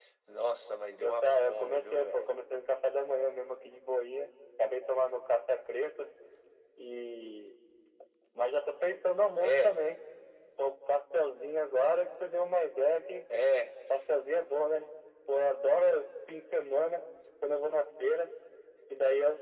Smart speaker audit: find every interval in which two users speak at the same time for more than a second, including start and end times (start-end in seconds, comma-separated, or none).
1.0-2.3